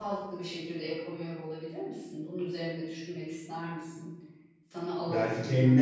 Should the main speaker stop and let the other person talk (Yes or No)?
Yes